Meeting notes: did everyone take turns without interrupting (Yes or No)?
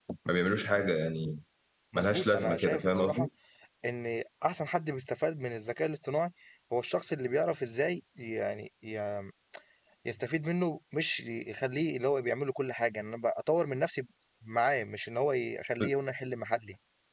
No